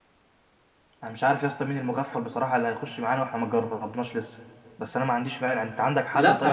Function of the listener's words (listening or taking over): taking over